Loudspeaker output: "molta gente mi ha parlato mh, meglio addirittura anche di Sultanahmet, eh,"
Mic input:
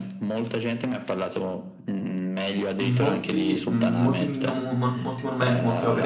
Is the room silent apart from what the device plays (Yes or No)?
No